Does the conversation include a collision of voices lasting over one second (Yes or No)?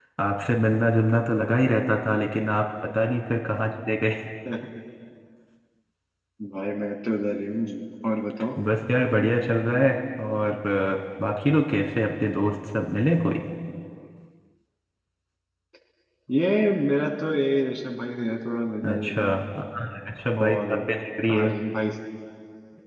No